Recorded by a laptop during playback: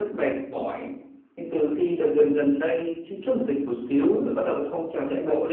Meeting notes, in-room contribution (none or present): none